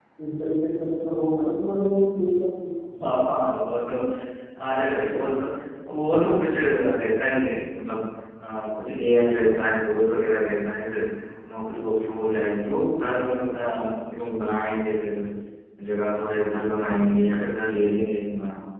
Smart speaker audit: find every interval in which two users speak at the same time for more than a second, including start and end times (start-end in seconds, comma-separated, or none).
none